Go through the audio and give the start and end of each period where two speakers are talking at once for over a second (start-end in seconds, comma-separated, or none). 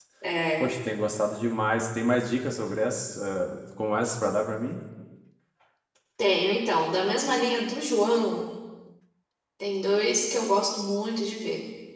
none